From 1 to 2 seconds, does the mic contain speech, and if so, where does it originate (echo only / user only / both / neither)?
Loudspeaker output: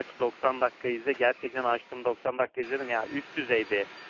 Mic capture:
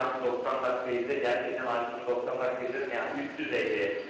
echo only